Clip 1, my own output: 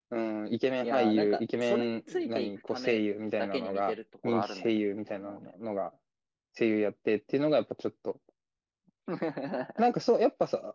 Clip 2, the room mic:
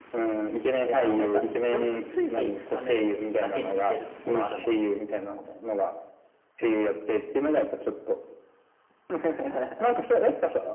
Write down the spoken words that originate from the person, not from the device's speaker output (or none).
none